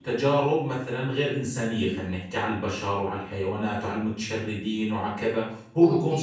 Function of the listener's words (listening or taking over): taking over